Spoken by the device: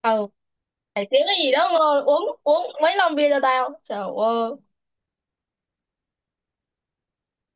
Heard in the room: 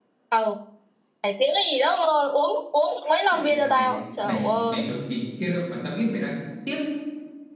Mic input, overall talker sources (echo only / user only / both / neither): both